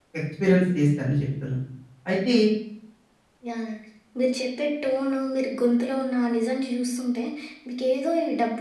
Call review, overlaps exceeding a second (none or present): none